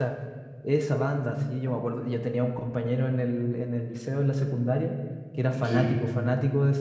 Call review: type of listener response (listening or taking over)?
listening